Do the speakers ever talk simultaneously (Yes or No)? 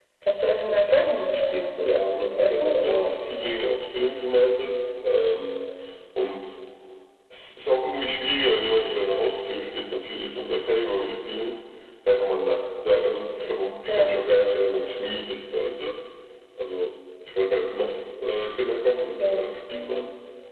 Yes